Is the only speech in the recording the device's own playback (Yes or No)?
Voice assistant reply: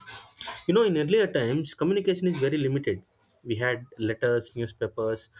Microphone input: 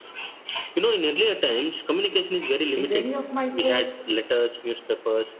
No